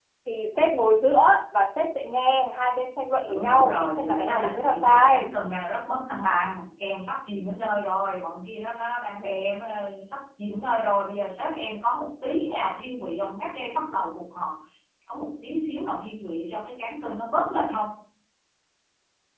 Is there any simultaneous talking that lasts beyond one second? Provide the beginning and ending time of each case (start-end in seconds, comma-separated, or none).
3.2-5.3